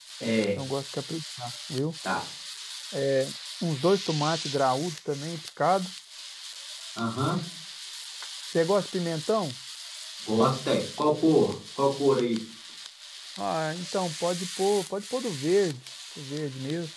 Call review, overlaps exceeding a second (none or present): none